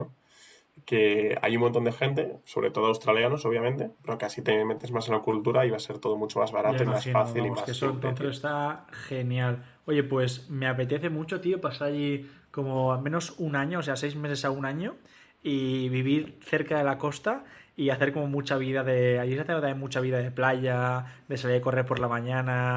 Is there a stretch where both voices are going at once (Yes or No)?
Yes